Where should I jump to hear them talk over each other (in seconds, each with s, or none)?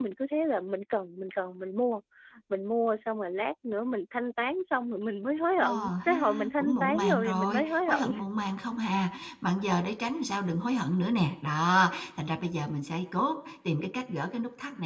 5.6 s